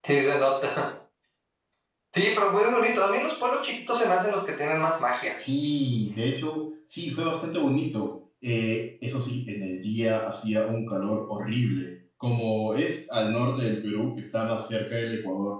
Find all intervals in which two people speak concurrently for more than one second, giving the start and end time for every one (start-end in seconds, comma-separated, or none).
none